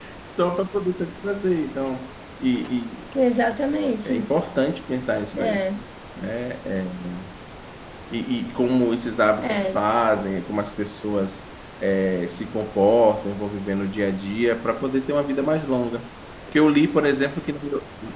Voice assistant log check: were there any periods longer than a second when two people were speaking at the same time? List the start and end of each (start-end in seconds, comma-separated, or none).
none